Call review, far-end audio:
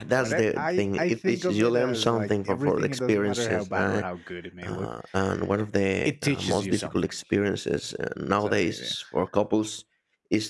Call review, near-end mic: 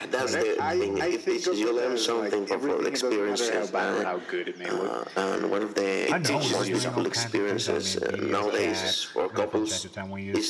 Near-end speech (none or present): present